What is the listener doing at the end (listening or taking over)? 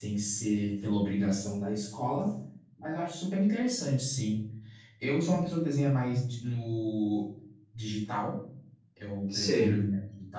listening